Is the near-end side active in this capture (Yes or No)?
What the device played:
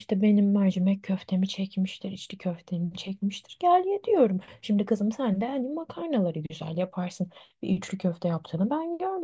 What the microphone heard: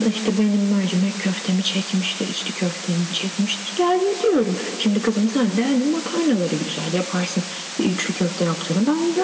No